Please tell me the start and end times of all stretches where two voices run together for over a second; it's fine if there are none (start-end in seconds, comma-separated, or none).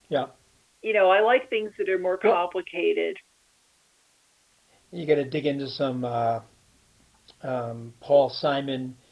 none